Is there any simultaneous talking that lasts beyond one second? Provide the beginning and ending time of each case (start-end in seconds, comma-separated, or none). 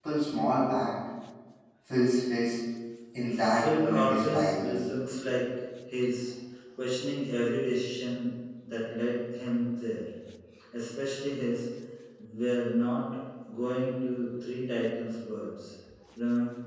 3.3-4.8